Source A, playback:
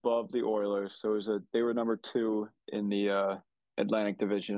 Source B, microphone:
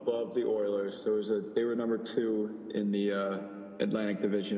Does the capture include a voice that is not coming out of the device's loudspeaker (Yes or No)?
No